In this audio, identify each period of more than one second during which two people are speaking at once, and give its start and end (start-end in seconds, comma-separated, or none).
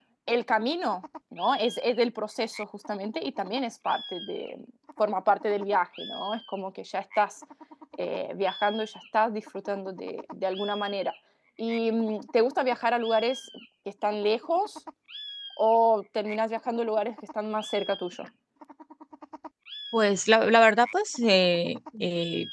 none